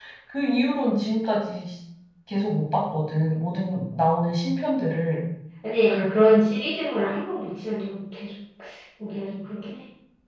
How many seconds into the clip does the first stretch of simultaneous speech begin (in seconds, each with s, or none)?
none